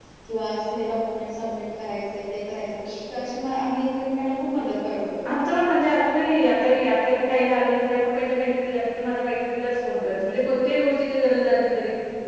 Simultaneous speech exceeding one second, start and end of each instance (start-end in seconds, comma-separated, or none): none